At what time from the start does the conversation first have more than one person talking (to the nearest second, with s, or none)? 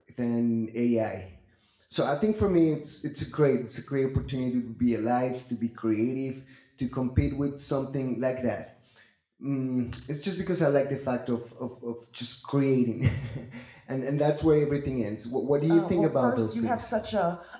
16 s